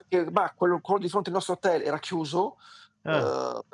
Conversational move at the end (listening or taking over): listening